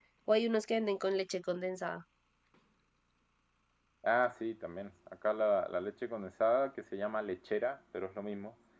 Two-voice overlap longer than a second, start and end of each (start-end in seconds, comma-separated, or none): none